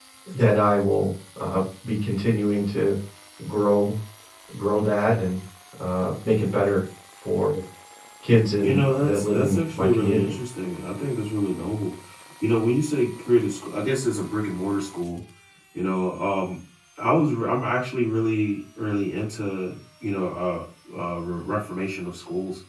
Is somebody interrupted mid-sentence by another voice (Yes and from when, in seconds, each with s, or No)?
Yes, from 8.6 s